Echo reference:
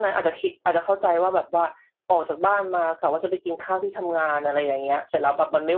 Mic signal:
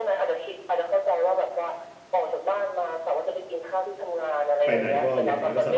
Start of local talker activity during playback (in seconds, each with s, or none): 4.6 s